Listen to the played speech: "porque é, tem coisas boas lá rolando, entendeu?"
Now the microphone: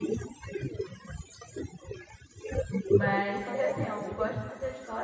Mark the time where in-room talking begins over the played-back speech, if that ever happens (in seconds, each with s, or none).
2.9 s